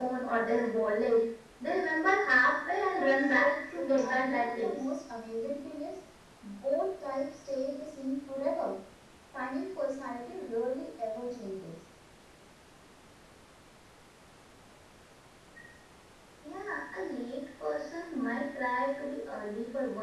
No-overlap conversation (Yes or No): No